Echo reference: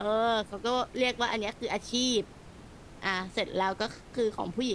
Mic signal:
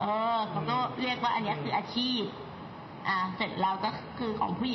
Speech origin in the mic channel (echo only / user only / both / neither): both